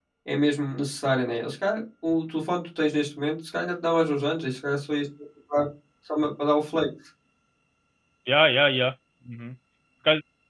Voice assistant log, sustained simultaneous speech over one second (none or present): none